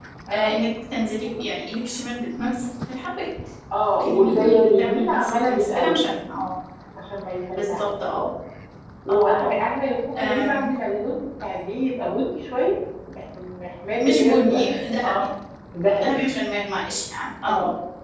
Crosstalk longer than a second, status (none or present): present